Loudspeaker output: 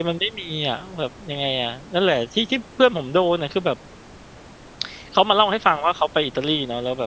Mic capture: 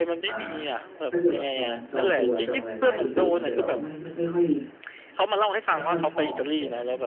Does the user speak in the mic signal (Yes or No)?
Yes